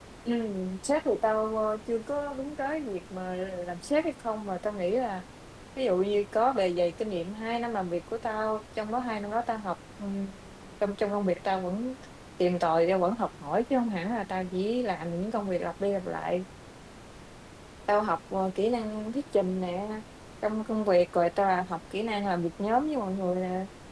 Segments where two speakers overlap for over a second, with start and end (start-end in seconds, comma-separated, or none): none